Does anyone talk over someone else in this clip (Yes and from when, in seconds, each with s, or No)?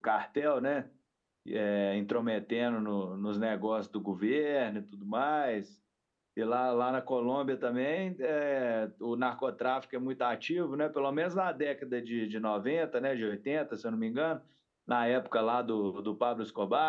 No